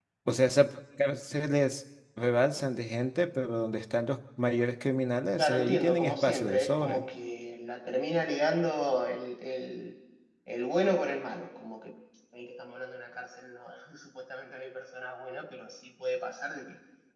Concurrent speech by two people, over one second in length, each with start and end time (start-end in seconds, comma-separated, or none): 5.4-7.0